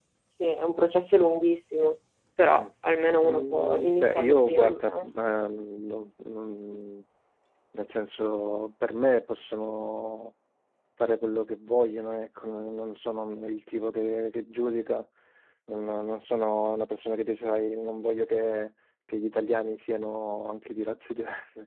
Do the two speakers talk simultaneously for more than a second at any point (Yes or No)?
Yes